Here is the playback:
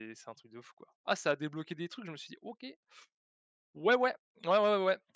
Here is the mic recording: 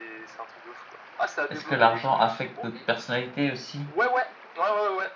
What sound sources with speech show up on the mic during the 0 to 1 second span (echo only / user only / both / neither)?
echo only